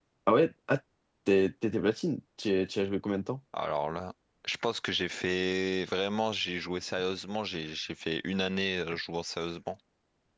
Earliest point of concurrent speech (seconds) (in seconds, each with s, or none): none